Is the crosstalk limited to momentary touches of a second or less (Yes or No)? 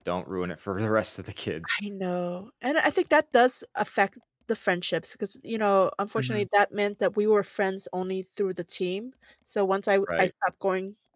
Yes